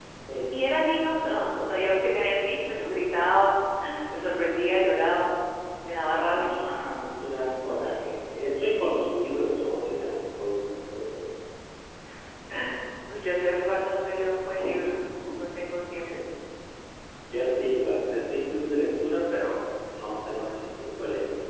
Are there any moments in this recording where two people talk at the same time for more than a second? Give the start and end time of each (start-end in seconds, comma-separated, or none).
none